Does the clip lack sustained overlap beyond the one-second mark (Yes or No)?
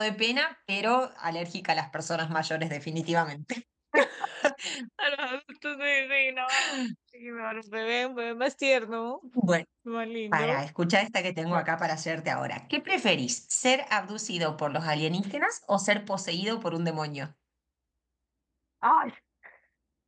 Yes